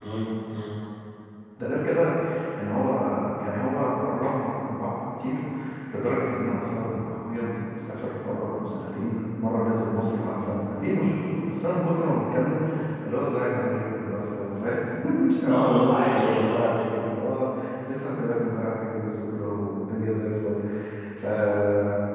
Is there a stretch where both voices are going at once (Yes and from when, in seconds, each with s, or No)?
Yes, from 15.5 s